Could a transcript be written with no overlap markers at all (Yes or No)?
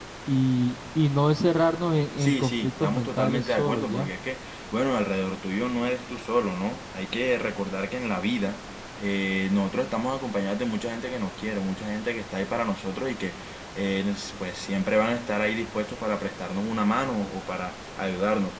No